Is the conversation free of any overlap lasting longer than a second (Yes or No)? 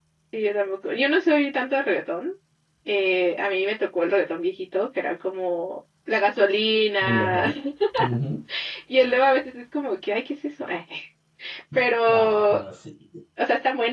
Yes